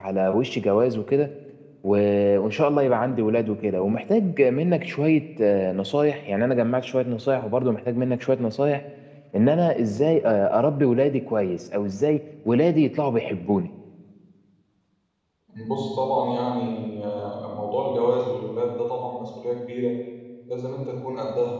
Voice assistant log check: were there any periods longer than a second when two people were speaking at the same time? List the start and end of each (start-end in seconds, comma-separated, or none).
none